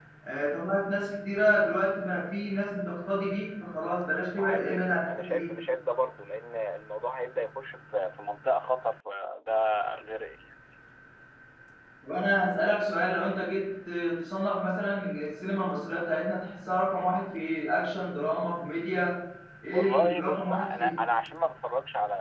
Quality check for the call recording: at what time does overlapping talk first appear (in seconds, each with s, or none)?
4.3 s